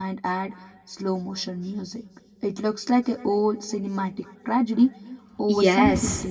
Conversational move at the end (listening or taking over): taking over